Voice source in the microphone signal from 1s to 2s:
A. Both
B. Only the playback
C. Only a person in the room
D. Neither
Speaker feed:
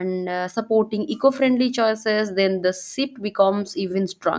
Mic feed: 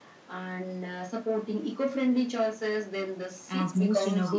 B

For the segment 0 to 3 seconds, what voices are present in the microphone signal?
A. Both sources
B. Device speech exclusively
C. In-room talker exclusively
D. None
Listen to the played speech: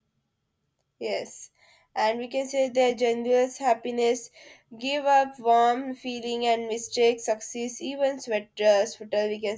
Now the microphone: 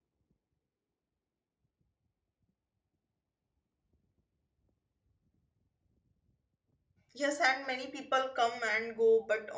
D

